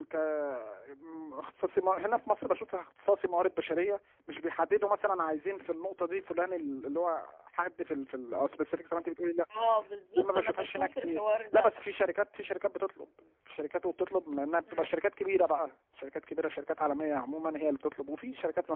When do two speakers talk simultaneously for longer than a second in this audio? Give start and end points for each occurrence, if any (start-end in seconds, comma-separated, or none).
10.1-11.7